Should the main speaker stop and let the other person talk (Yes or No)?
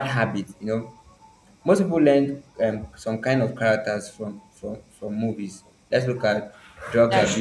No